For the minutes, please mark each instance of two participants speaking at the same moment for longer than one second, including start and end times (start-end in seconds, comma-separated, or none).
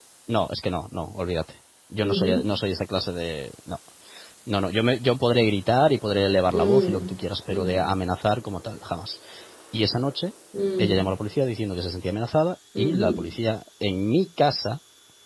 none